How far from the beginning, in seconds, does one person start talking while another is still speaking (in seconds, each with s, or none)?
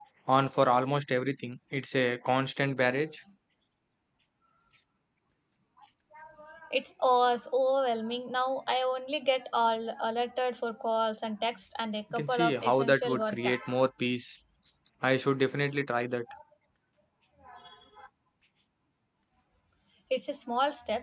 12.1 s